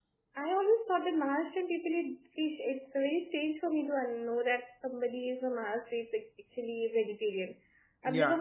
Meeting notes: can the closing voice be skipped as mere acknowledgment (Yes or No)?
No